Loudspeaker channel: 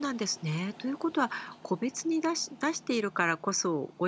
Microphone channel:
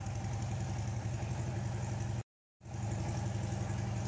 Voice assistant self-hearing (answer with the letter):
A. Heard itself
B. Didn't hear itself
B